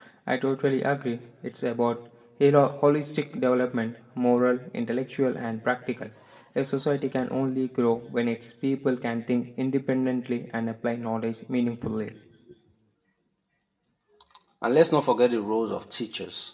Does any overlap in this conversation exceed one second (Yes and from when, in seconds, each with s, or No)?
No